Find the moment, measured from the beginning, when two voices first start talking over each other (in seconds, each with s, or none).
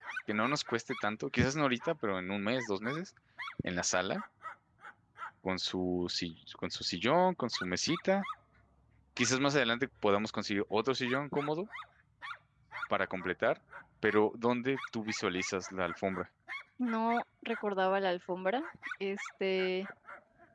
none